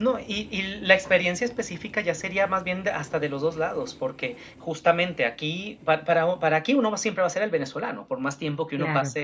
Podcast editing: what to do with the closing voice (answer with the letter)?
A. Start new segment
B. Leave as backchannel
B